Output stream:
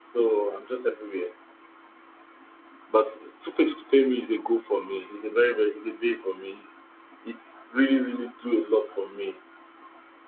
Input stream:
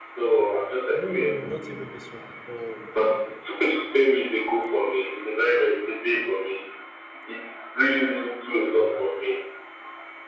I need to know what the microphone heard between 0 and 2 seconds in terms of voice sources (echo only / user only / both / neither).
both